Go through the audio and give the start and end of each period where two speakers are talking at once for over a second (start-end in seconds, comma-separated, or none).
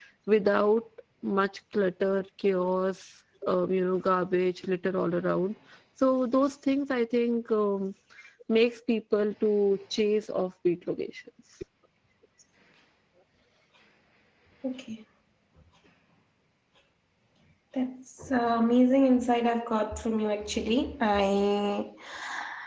none